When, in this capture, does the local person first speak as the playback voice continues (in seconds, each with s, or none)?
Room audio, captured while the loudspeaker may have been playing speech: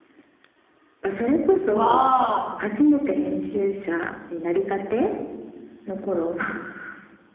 1.7 s